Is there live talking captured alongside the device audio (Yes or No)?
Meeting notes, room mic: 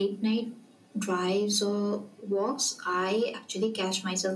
No